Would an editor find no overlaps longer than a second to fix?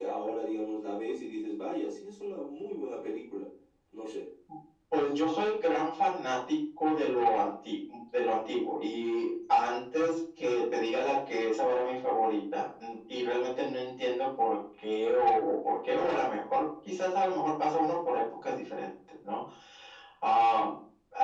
Yes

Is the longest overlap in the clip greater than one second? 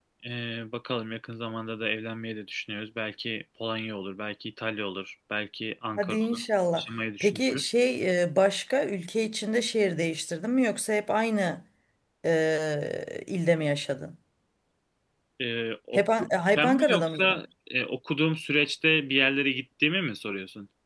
Yes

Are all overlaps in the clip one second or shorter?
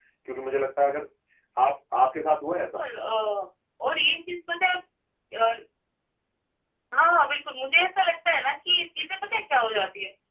Yes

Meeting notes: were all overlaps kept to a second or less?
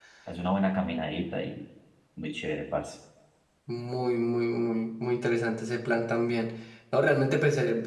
Yes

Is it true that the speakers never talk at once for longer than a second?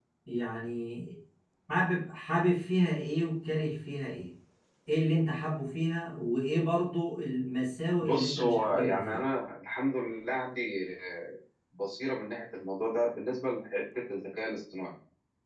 No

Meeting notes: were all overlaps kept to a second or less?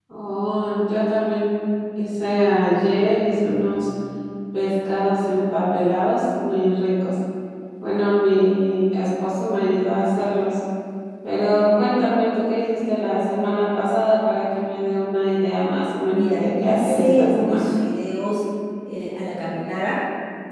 No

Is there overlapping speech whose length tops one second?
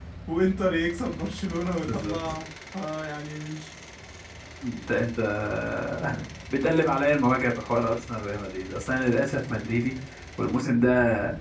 No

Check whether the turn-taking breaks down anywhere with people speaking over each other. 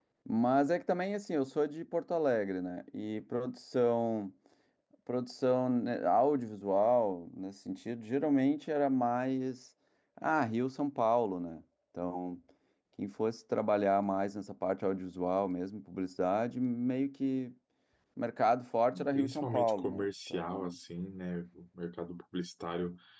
Yes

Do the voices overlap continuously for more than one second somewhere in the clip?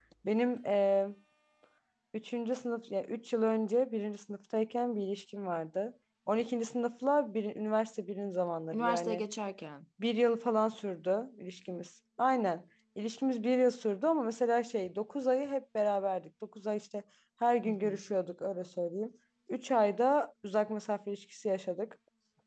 No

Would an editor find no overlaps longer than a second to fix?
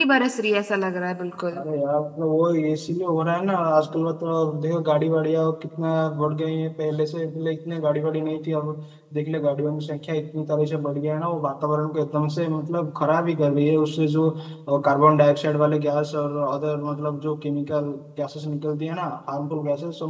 Yes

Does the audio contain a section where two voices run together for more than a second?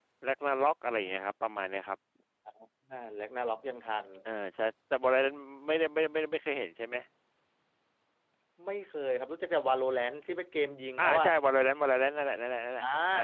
No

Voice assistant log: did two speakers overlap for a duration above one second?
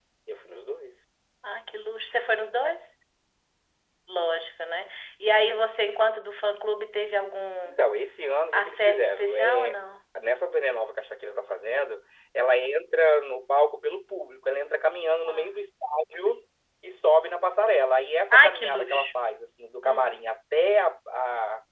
Yes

